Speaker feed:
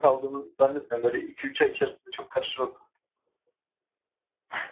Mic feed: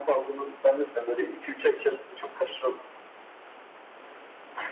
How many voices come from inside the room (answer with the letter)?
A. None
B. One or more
A